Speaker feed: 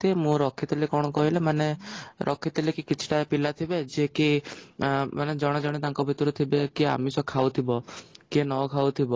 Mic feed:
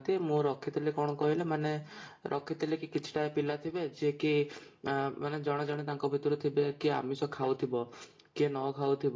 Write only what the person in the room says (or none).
none